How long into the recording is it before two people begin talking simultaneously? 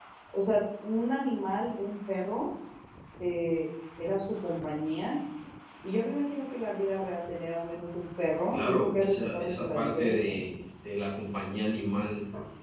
8.5 s

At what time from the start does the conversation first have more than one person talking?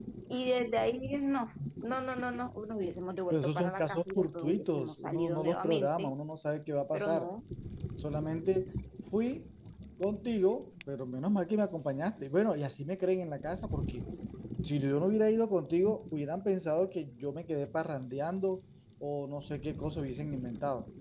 3.3 s

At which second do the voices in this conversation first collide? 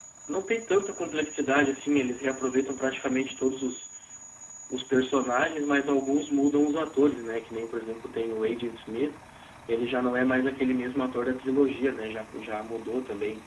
none

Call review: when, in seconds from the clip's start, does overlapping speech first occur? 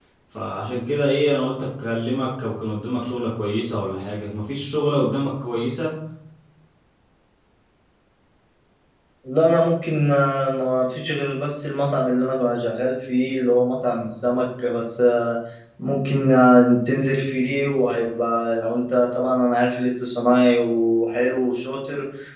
none

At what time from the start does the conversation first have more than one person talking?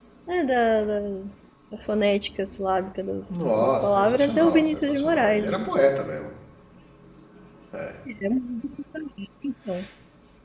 3.3 s

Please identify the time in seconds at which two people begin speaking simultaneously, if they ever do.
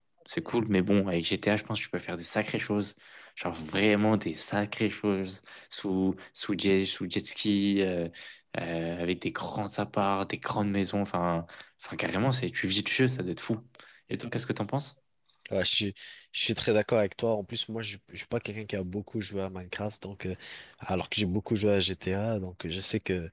none

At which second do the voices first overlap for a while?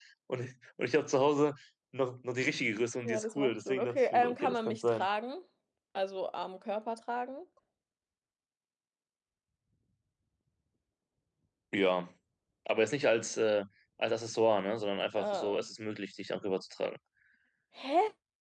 3.0 s

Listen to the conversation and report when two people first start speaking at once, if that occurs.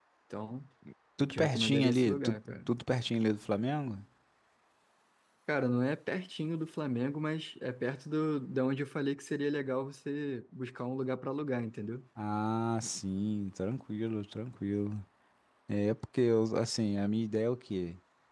1.2 s

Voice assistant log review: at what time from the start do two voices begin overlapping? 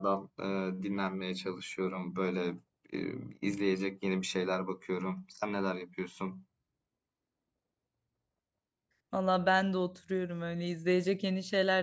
none

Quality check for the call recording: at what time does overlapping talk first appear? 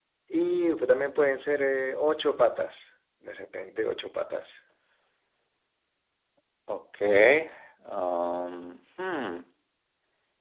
none

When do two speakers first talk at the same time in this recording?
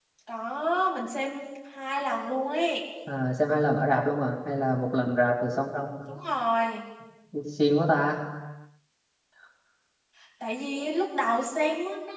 none

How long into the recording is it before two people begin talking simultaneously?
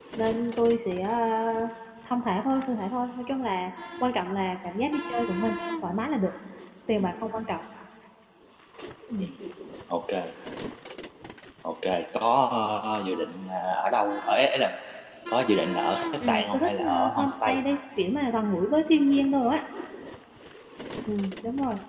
16.2 s

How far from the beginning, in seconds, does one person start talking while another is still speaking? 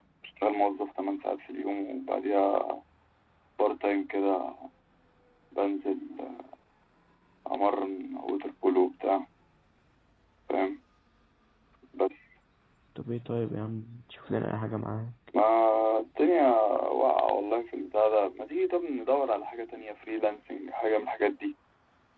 none

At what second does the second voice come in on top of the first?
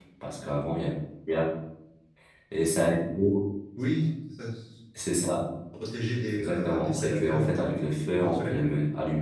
6.4 s

